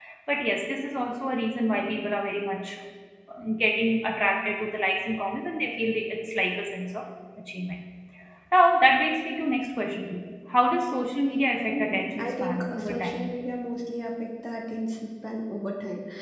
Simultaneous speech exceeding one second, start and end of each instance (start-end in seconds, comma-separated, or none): 11.7-13.3